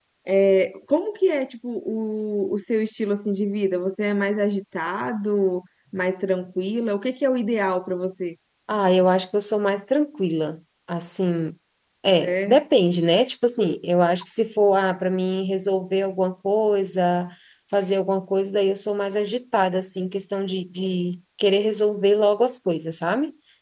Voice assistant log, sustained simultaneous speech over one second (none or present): none